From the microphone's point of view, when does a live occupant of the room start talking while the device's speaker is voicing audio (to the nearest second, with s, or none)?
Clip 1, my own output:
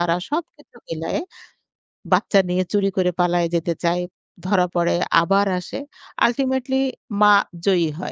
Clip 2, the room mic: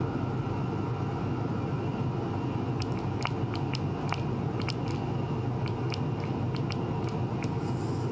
none